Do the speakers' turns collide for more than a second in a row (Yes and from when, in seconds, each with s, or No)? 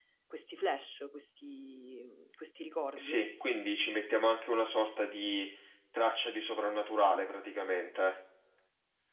No